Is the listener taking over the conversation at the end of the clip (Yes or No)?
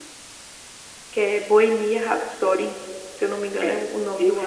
Yes